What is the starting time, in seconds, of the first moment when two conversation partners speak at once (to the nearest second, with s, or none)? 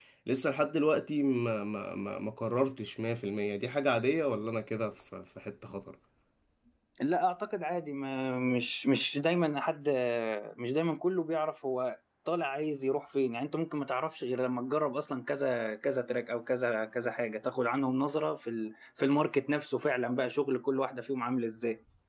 none